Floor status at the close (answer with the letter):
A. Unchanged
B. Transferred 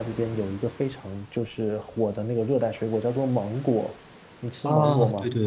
B